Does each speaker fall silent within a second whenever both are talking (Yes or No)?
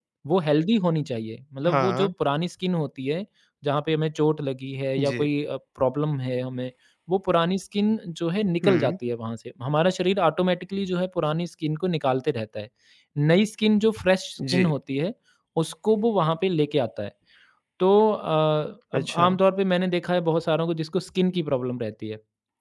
Yes